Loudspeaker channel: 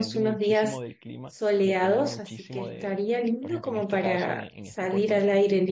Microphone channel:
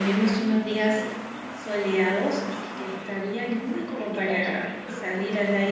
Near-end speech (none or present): none